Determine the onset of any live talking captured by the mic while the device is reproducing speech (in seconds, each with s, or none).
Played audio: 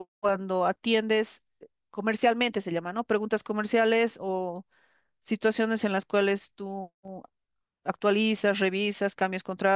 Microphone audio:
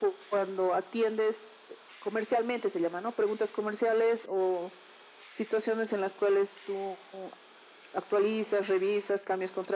none